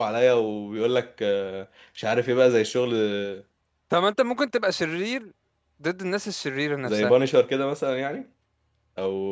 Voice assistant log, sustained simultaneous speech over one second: none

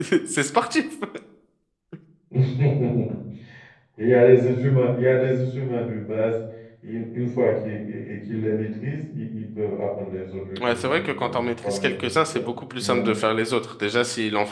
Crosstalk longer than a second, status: present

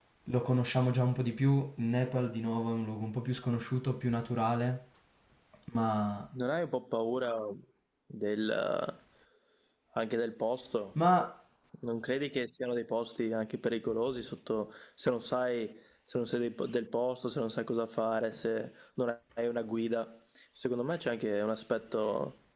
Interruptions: none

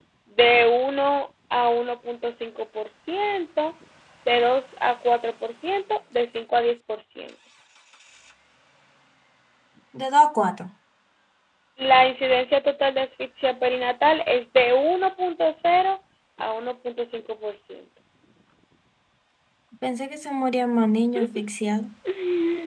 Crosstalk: none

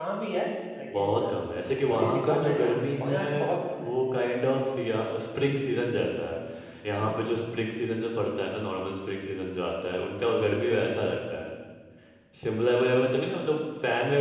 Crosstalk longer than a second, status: present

